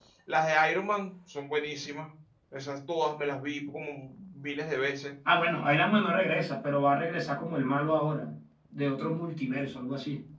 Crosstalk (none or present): none